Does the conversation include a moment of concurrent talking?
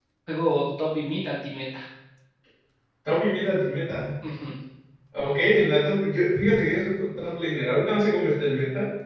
No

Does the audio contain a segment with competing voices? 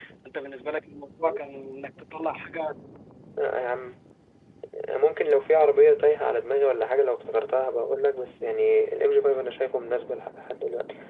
No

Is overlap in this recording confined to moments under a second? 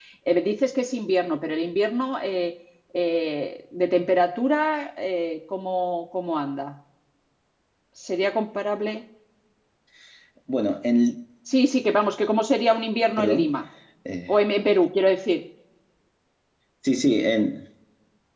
Yes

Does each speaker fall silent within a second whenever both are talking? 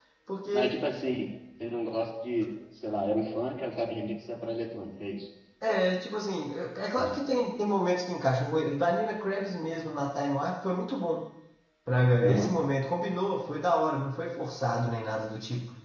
Yes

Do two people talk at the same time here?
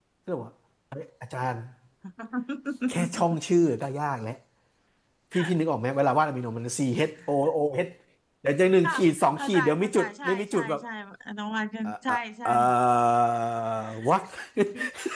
Yes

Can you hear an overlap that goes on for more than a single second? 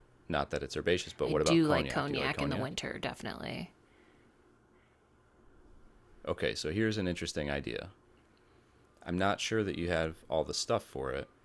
Yes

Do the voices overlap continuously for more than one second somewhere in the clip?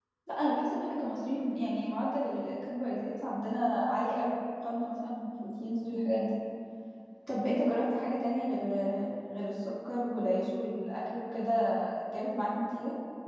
No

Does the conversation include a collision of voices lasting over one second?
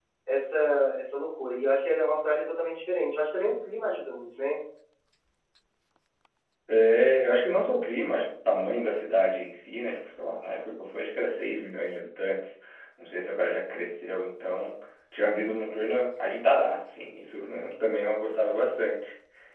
No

